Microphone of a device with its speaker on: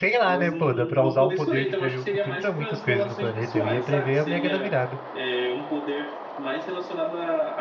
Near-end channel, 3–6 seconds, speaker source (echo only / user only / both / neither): both